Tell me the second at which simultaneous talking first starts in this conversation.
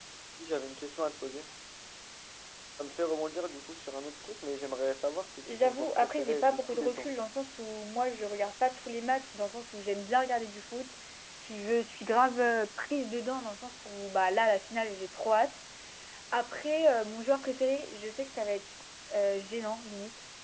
5 s

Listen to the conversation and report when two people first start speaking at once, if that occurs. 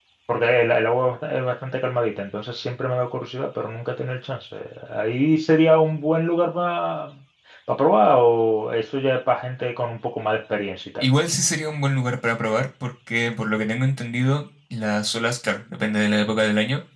none

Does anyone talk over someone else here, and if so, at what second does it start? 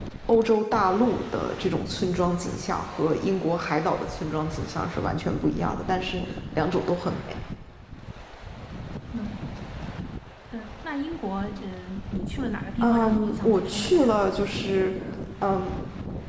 13 s

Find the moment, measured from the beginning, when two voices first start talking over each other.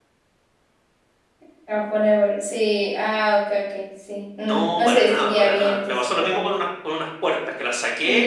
4 s

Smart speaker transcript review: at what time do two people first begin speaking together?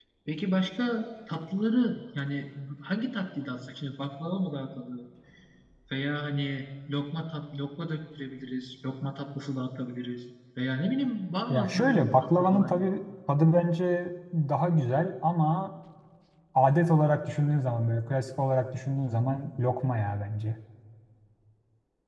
11 s

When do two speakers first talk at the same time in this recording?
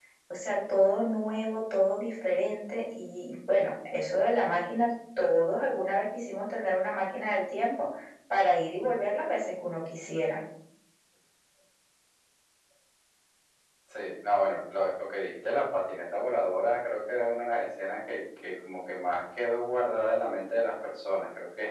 none

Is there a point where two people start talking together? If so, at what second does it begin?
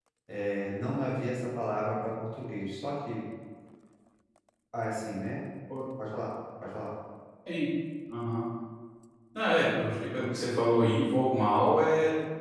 none

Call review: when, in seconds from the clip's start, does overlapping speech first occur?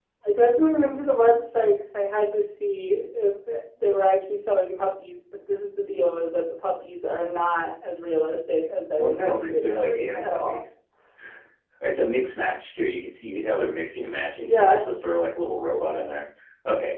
9 s

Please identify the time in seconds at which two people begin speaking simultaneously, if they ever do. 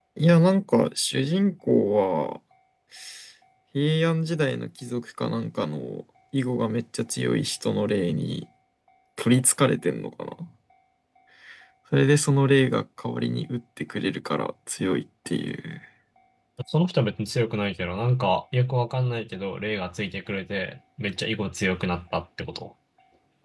none

